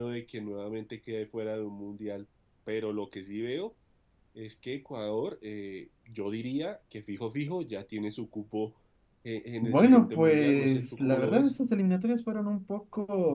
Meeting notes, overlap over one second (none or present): present